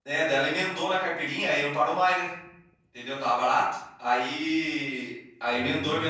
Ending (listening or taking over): listening